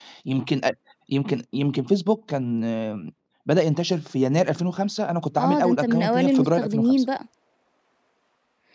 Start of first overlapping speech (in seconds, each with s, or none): 5.4 s